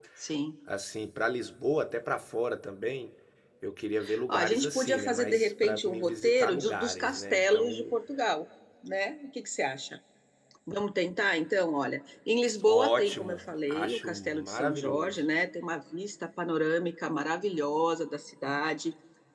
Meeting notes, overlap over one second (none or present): present